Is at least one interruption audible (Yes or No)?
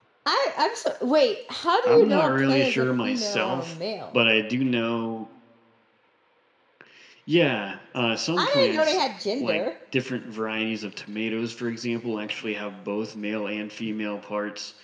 Yes